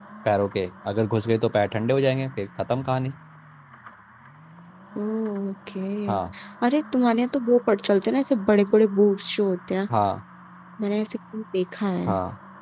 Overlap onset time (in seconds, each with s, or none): none